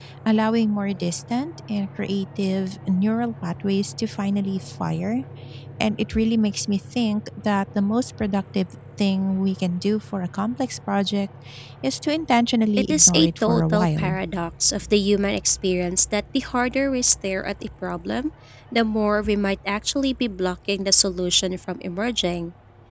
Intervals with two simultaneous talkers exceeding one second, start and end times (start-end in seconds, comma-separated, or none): 12.8-14.1